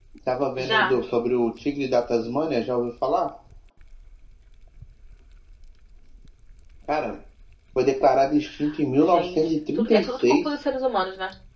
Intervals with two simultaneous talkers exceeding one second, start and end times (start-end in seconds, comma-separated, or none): 9.0-10.5